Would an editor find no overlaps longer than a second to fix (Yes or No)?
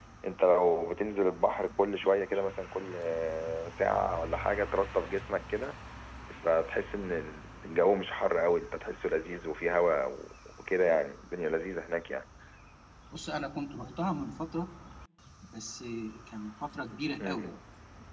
Yes